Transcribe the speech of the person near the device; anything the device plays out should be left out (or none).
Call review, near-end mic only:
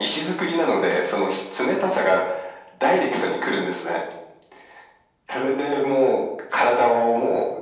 none